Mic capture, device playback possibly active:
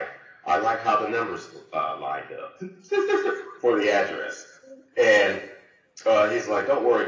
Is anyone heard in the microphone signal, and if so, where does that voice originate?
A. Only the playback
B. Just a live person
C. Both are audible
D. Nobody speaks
A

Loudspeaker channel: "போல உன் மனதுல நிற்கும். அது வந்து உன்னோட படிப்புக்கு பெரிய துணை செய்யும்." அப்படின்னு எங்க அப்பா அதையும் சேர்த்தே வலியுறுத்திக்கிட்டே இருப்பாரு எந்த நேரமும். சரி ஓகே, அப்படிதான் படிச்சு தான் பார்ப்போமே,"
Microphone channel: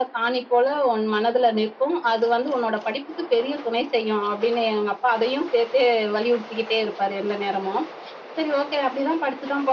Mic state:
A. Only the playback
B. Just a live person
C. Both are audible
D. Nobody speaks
A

